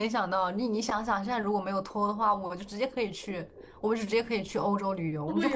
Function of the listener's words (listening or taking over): taking over